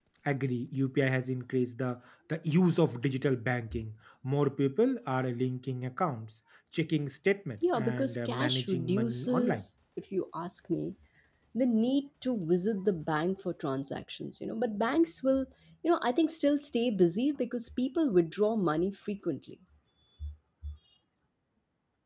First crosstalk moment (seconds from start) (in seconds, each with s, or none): 7.6 s